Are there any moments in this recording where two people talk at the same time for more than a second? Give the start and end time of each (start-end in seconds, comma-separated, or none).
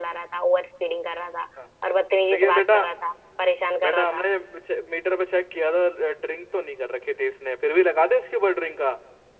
none